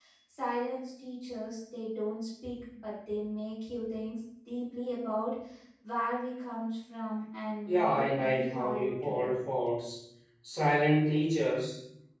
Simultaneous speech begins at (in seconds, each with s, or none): 7.7 s